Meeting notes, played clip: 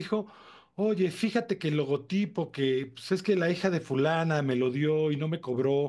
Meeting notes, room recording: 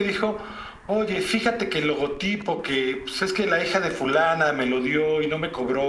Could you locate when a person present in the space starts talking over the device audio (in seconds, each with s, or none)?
none